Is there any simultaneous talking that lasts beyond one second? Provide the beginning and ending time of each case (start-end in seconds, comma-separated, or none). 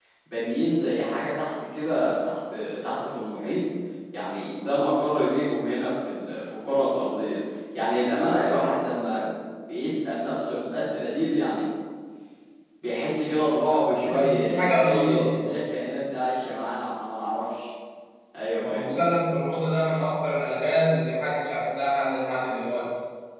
14.1-15.7